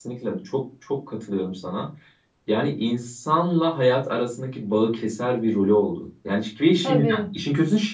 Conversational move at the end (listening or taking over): listening